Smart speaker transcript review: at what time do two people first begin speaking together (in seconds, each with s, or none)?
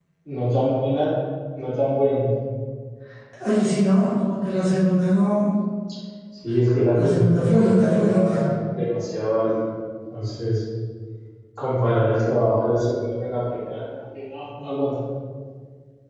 7.0 s